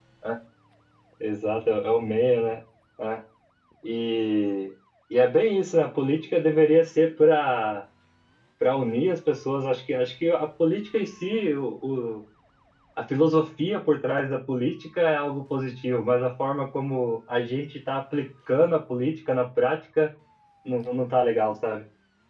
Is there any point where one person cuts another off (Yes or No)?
No